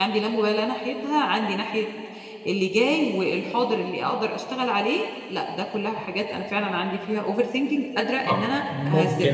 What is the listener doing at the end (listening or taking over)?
taking over